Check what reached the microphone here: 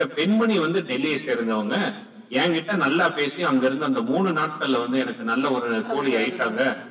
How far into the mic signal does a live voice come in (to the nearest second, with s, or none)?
6 s